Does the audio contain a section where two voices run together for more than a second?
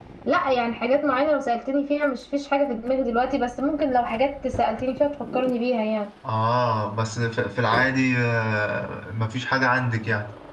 No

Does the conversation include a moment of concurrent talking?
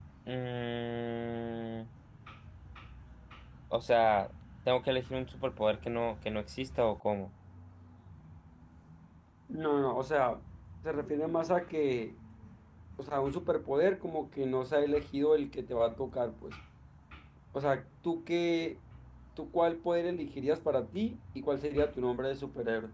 No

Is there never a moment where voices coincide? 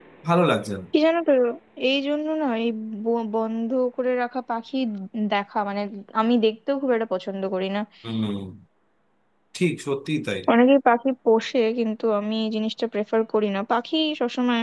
Yes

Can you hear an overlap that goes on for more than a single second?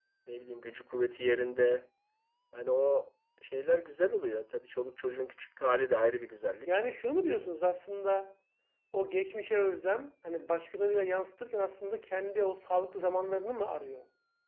No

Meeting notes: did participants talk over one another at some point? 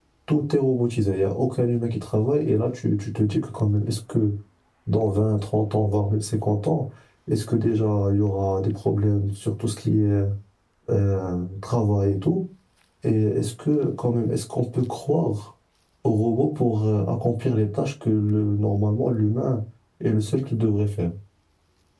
No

